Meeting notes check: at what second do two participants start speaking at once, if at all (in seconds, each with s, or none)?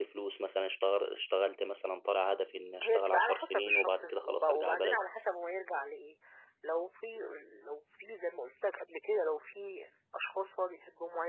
2.8 s